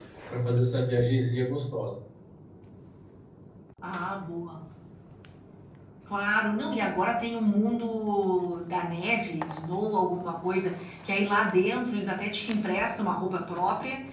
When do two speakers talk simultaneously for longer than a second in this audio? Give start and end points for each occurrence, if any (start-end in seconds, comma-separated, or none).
none